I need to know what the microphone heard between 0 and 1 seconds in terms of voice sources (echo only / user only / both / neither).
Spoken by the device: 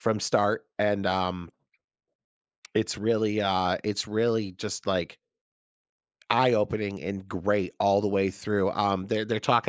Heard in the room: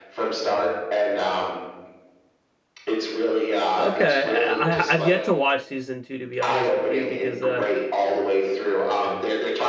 echo only